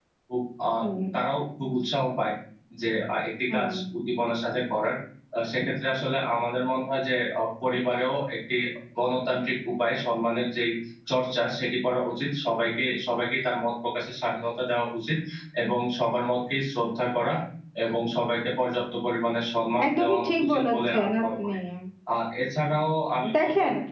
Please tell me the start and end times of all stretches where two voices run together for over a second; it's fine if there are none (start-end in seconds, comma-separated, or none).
19.8-21.6